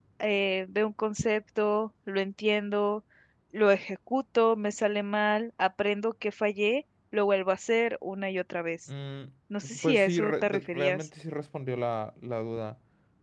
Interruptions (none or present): present